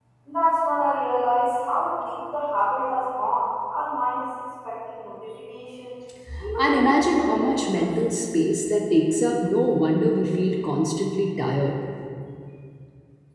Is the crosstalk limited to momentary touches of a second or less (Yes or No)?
No